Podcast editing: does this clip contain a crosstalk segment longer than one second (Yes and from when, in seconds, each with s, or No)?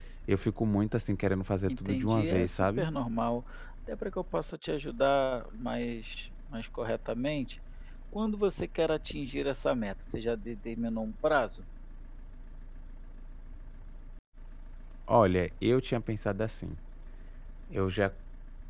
Yes, from 1.6 s